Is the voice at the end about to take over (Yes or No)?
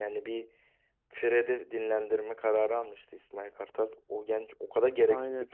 No